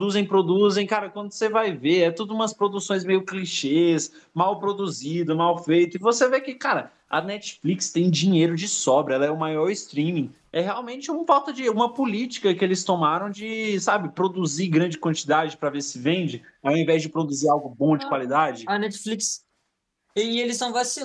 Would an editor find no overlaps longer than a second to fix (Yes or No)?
Yes